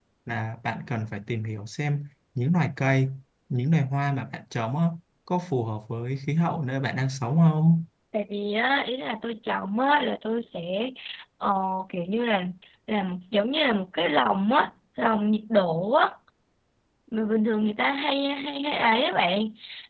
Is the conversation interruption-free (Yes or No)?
Yes